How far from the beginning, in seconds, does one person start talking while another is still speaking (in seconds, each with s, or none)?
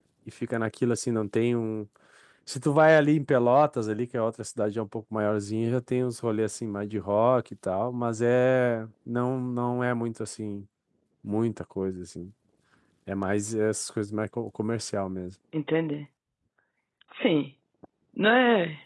none